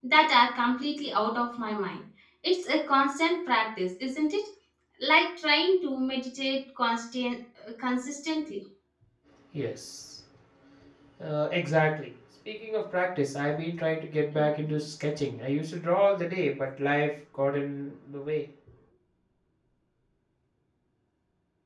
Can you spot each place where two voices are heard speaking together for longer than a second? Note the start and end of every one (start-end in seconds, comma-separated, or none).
none